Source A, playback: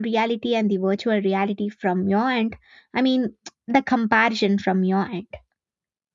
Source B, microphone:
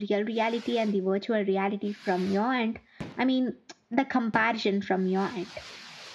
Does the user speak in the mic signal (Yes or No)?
No